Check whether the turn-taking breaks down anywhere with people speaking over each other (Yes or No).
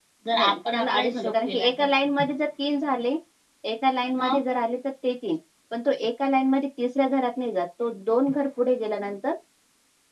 Yes